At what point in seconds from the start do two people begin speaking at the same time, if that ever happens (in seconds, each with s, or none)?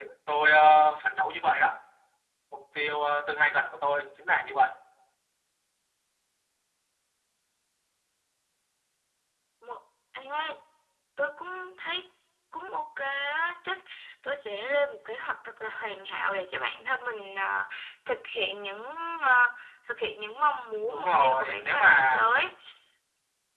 20.9 s